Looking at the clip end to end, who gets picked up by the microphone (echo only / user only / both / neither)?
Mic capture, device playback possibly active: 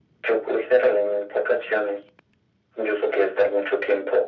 echo only